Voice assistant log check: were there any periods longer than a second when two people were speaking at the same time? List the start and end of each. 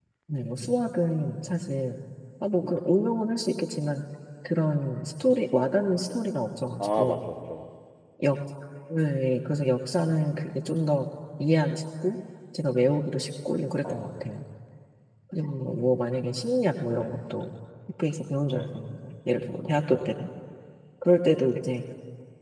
none

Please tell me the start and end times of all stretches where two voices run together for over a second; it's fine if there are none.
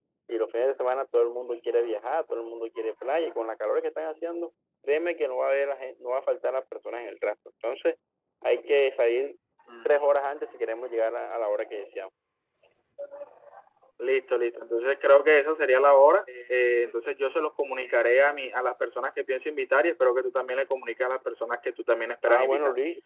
none

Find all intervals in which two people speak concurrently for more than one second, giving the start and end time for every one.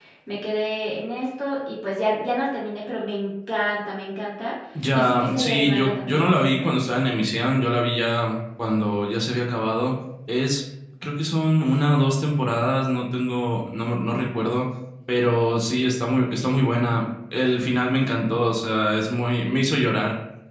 4.9-6.3

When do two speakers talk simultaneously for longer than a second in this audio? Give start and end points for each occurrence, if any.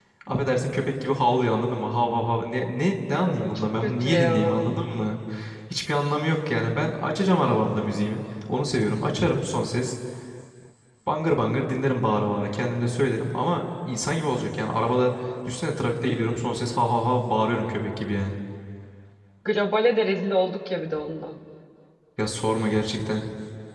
3.2-4.6

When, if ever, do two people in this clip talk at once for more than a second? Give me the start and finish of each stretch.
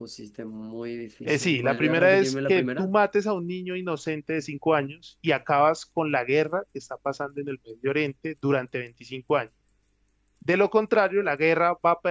1.2-2.9

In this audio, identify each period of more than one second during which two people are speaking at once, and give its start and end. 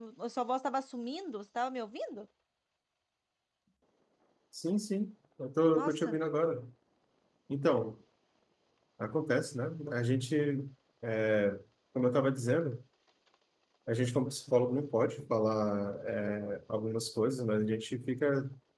none

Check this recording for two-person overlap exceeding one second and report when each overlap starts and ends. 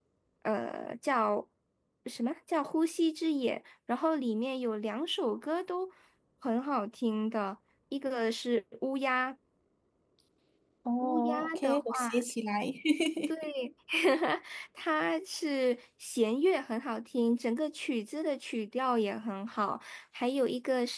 11.0-12.2

